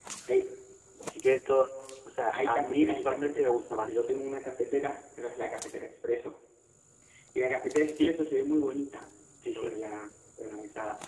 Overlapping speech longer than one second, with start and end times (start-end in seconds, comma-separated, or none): 2.3-4.1